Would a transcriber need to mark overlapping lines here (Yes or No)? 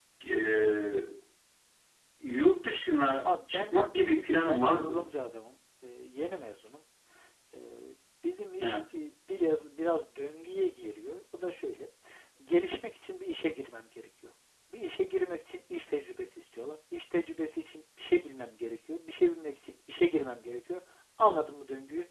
Yes